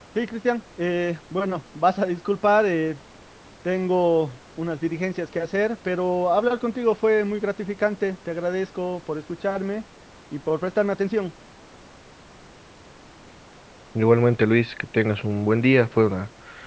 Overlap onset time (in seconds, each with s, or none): none